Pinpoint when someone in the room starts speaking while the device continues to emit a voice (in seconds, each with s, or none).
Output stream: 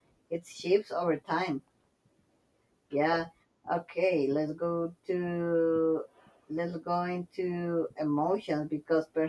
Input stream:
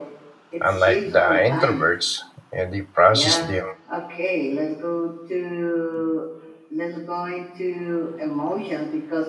0.6 s